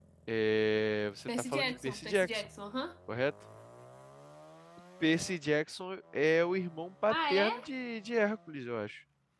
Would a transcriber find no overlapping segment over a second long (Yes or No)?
No